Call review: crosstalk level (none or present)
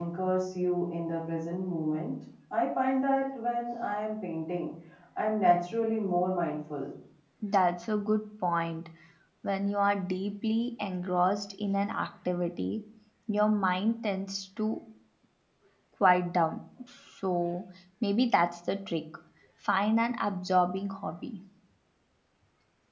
none